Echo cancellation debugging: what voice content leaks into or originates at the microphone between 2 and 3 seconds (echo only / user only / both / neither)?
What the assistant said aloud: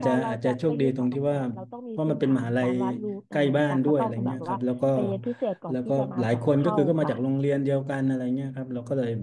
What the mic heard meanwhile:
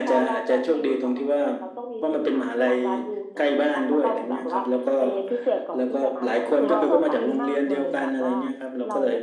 echo only